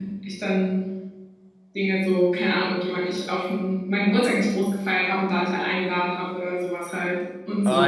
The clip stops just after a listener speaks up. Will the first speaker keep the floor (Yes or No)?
No